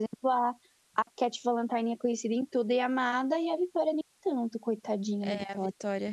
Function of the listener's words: taking over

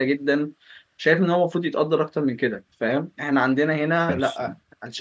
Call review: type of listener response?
listening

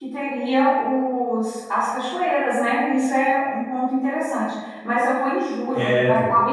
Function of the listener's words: listening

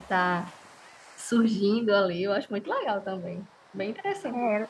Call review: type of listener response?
taking over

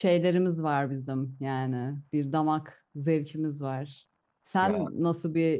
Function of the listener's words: listening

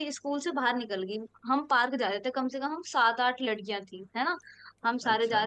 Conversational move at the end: listening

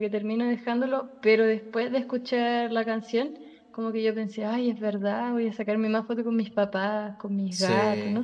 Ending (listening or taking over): taking over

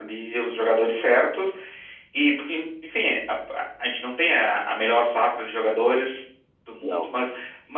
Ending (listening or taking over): listening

